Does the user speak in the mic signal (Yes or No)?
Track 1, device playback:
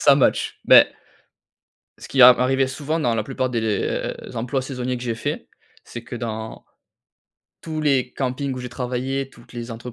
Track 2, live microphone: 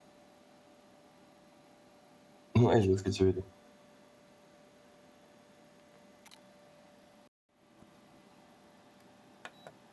Yes